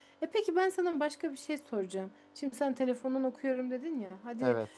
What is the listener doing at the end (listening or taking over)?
listening